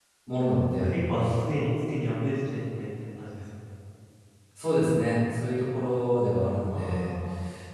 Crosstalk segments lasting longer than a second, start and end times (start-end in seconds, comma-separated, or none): none